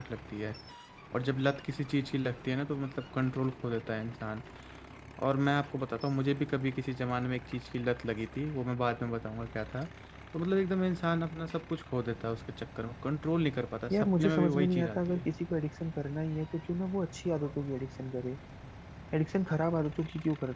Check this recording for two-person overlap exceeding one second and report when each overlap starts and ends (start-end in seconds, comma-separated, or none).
13.9-15.2